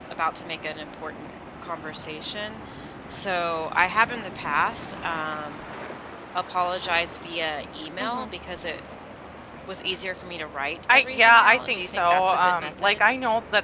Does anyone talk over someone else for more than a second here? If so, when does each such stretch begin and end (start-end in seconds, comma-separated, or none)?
10.9-13.0